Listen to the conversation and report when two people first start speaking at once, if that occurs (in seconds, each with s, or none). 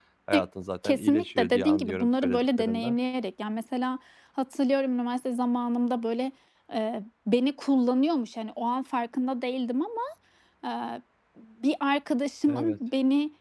0.8 s